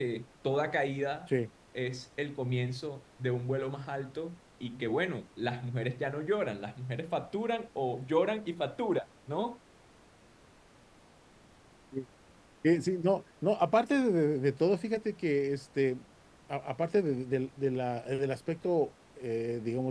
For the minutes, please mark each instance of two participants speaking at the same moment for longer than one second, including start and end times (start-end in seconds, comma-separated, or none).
none